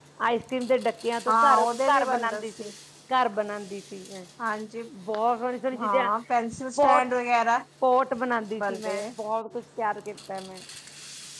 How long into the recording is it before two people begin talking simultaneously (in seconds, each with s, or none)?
1.3 s